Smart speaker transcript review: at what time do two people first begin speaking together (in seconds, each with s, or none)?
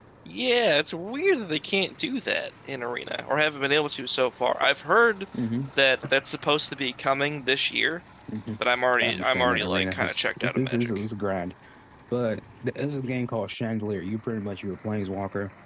9.0 s